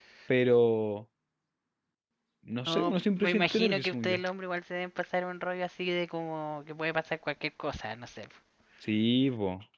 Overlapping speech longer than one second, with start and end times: 2.7-4.2

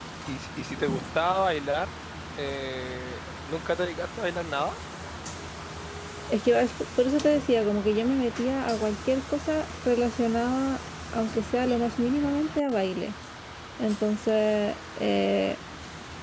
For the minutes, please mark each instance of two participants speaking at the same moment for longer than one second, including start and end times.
none

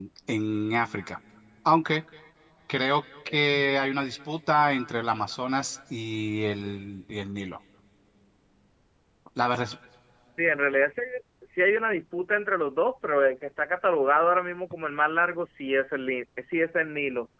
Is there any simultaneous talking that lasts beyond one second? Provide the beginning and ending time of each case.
none

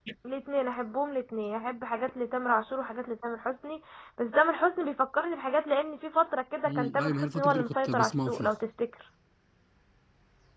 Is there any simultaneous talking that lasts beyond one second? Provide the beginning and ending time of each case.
6.7-8.5

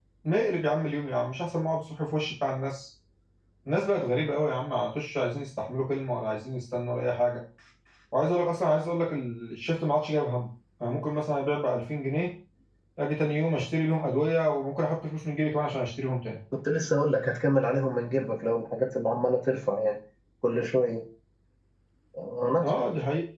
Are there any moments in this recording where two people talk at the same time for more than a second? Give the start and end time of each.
none

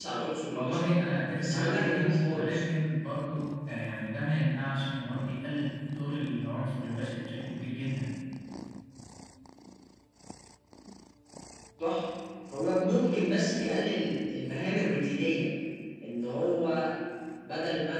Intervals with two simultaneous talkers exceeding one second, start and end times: 1.4-2.6

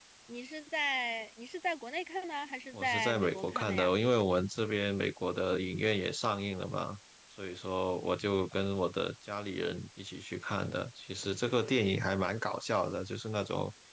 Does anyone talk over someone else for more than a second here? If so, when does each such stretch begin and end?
2.7-3.9

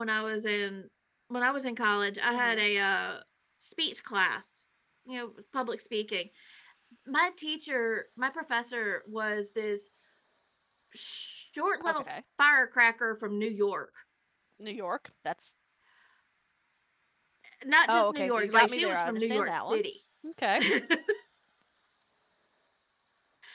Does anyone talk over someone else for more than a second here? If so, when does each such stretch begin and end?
17.9-19.8

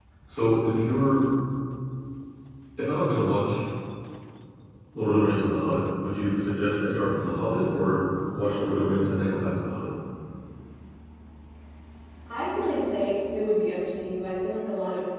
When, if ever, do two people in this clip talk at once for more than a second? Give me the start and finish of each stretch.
none

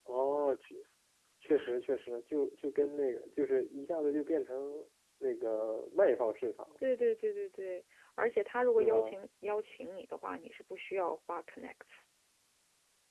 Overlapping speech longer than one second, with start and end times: none

